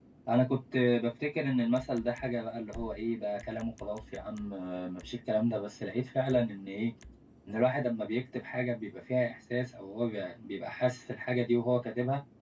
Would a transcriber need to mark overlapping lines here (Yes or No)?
No